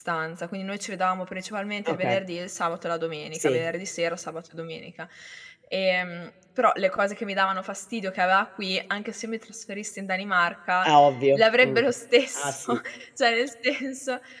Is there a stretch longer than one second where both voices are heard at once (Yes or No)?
No